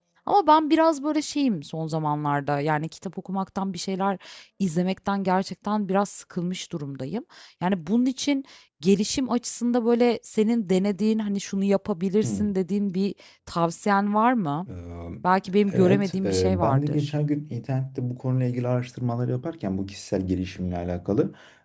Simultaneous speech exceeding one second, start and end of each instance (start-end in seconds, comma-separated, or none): 15.7-17.1